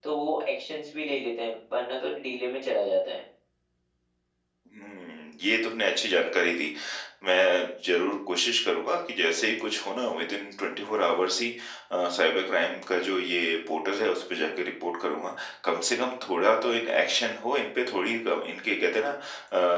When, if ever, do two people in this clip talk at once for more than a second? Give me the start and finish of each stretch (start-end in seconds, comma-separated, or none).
none